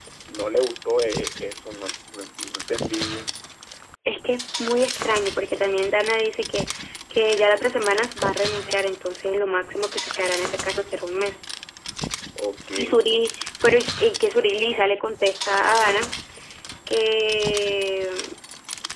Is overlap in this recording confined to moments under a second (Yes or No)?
Yes